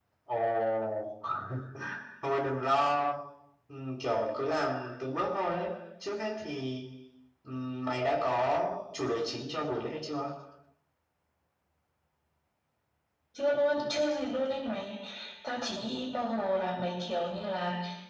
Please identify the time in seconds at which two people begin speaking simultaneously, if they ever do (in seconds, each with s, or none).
none